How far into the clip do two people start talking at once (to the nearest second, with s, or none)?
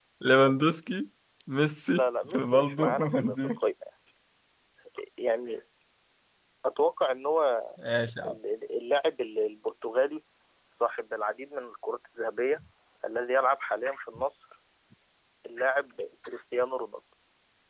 2 s